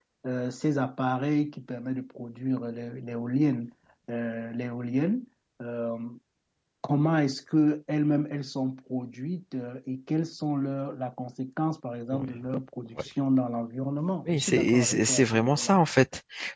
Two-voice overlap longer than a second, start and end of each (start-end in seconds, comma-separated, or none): 14.3-15.8